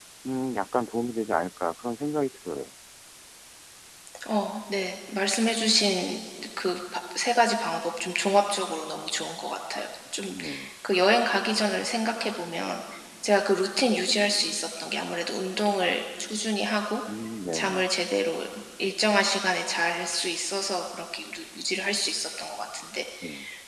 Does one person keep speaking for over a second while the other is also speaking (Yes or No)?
No